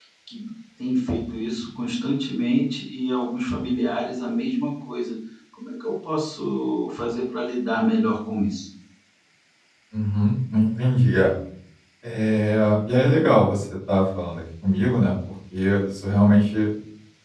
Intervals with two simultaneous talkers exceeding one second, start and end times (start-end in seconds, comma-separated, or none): none